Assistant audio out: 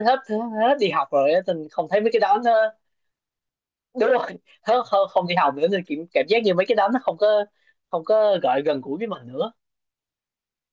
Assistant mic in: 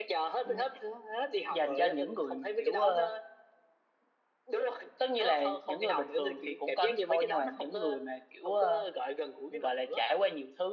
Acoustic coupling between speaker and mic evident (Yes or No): Yes